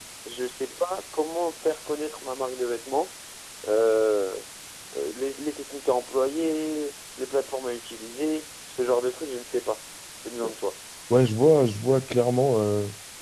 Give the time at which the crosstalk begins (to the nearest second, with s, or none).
none